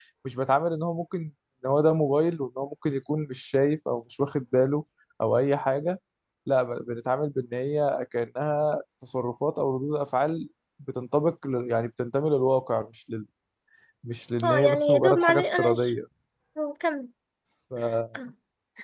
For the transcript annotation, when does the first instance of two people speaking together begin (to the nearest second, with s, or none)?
14 s